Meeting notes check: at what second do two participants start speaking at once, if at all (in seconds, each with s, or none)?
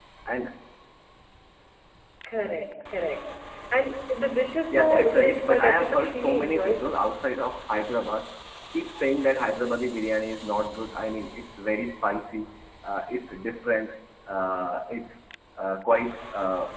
4.7 s